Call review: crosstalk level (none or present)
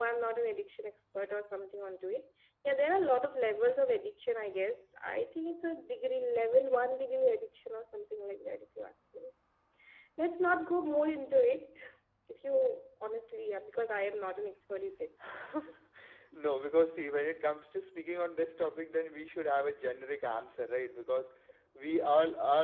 none